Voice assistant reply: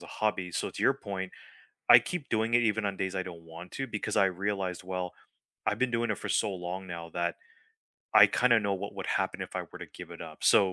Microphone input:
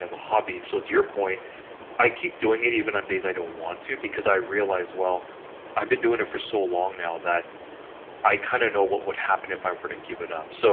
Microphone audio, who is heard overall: echo only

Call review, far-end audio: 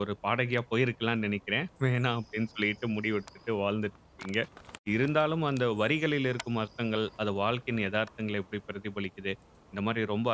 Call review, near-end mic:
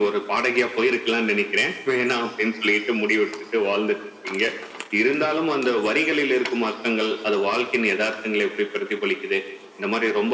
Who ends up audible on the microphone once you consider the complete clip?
echo only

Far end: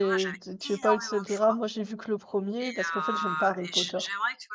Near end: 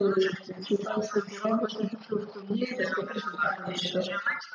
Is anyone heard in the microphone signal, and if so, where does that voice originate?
echo only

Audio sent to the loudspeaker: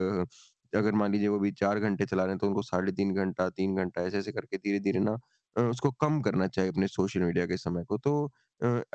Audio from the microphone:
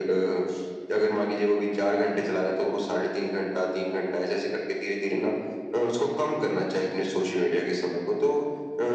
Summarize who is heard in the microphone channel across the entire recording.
echo only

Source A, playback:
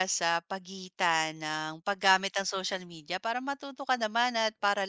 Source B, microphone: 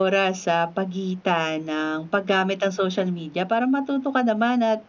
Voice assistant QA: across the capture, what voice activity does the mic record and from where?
echo only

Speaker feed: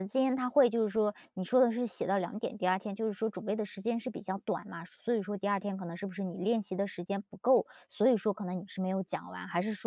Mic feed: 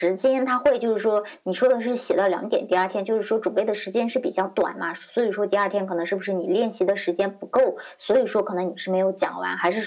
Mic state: echo only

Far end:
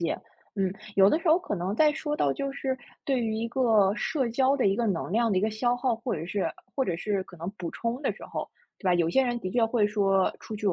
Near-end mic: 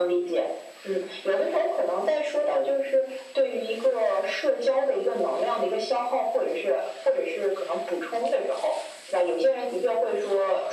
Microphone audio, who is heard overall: echo only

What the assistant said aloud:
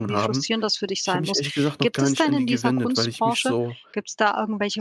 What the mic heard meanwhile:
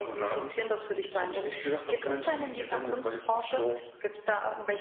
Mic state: echo only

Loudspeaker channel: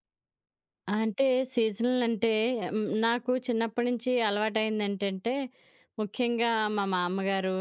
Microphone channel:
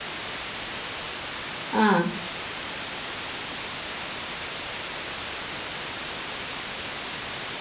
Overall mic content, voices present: user only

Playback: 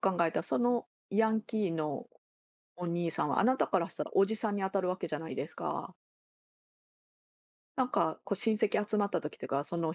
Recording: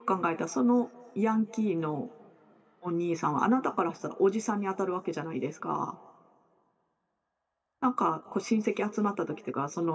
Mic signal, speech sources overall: echo only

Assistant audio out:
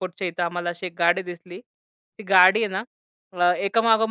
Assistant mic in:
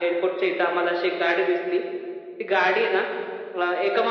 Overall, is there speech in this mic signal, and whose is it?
echo only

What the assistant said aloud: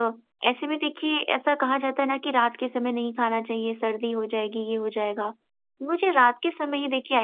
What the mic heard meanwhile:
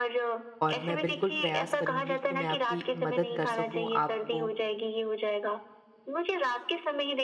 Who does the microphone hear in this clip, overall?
both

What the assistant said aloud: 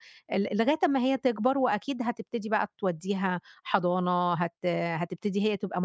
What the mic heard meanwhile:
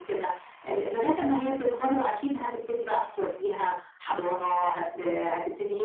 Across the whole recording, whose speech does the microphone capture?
both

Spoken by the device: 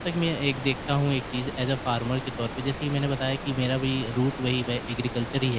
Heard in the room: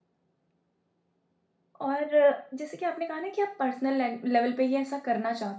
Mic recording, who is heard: user only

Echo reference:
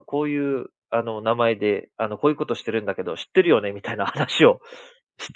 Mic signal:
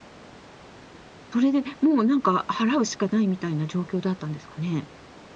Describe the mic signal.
user only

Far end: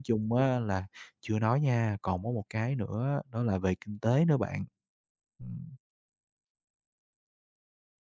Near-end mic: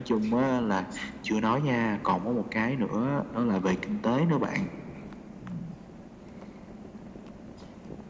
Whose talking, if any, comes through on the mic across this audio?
echo only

